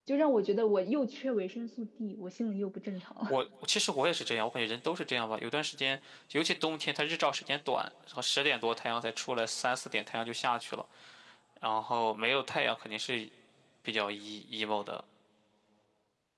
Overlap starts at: none

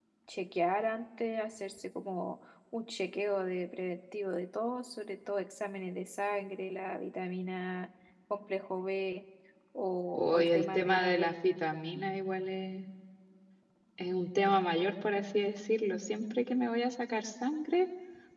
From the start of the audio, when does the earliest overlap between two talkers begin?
10.1 s

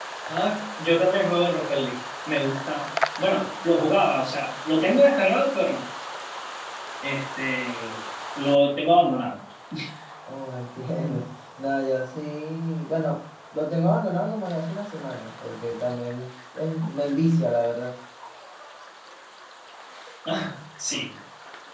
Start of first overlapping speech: none

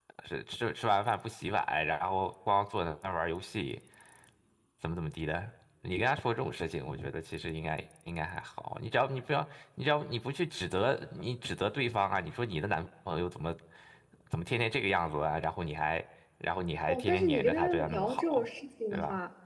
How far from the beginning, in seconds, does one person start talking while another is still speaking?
16.9 s

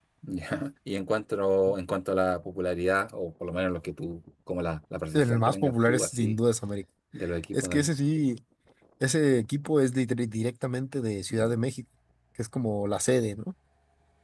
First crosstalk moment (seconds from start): 5.1 s

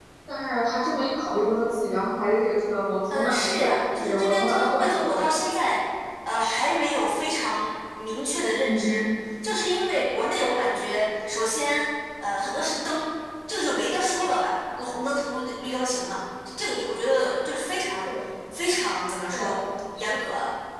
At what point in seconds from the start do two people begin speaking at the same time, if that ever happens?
3.1 s

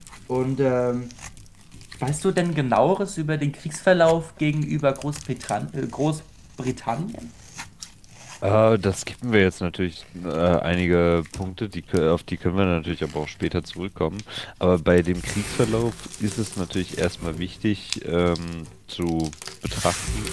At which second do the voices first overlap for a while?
none

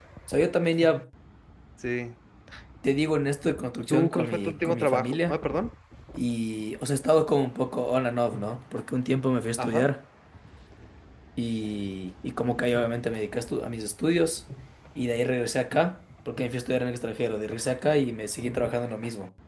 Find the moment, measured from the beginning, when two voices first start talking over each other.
3.9 s

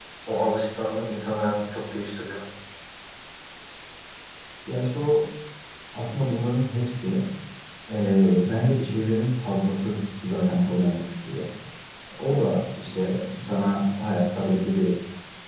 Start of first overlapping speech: none

